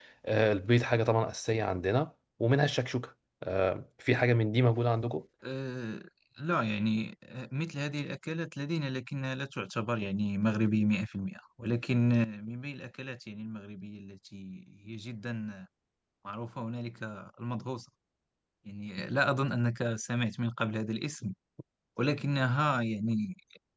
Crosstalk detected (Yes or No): No